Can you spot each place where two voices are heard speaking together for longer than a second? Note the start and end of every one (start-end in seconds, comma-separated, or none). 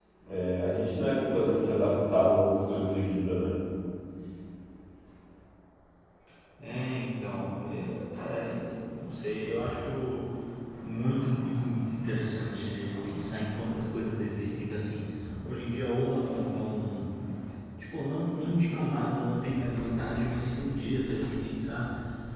none